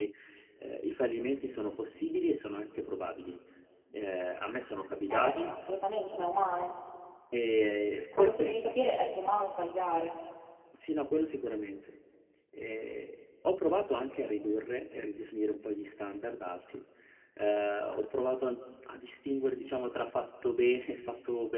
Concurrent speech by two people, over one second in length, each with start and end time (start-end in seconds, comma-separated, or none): none